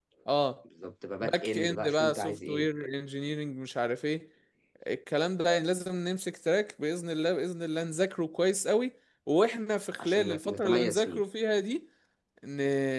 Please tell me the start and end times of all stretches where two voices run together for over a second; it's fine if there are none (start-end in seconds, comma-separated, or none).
1.2-2.7, 10.0-11.2